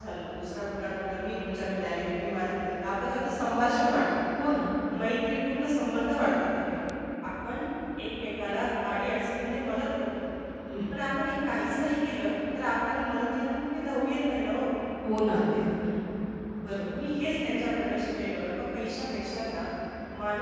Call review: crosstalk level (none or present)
none